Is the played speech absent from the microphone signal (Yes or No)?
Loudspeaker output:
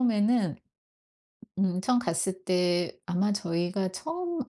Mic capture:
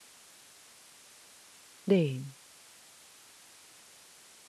Yes